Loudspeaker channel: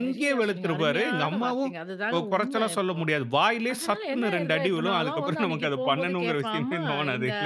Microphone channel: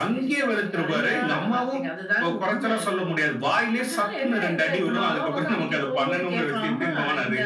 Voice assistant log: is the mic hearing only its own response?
Yes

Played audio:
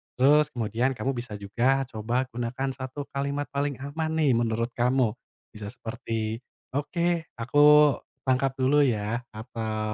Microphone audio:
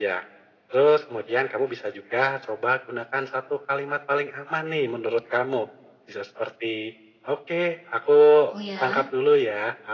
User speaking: Yes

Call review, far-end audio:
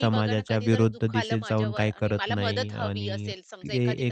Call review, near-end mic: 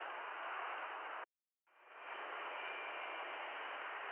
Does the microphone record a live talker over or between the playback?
No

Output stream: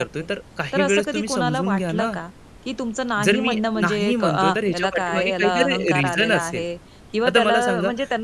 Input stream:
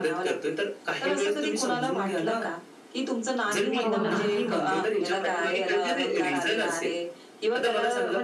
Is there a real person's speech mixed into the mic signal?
Yes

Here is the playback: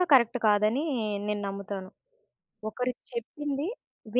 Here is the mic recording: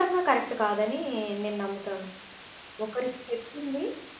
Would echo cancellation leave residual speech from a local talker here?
No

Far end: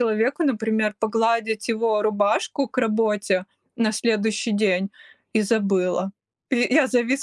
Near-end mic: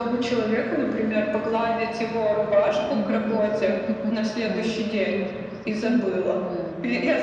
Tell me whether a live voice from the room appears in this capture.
Yes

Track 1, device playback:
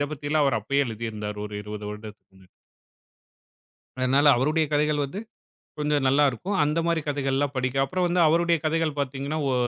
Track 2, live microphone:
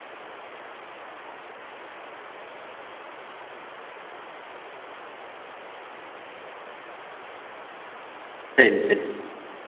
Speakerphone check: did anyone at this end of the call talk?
Yes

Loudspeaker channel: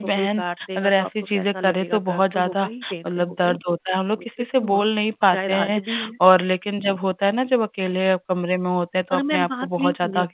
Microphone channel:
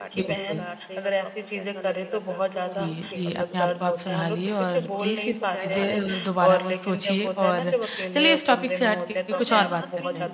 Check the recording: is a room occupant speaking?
Yes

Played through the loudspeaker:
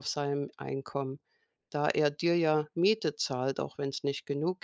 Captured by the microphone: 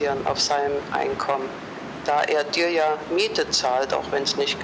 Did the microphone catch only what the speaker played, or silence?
Yes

